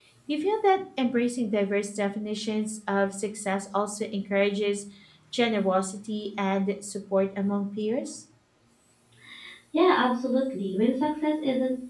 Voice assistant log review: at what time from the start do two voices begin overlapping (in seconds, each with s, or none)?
none